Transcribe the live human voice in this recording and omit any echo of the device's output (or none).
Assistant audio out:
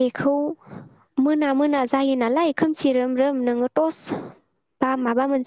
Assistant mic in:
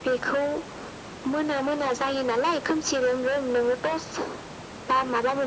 none